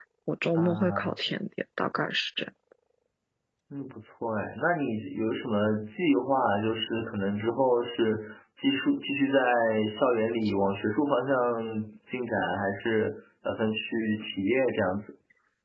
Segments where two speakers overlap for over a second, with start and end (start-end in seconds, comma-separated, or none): none